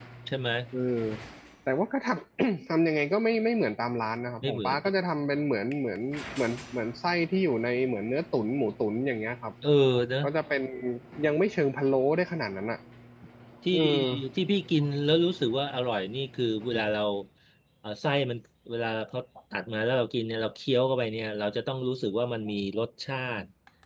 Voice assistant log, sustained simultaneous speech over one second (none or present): none